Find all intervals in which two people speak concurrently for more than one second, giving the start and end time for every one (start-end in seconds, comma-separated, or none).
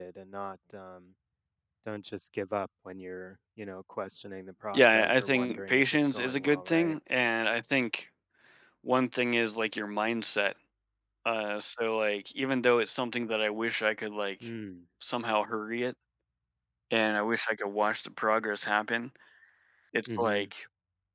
4.7-7.0